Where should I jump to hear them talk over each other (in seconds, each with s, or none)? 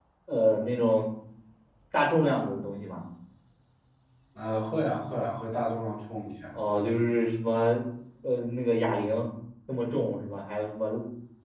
none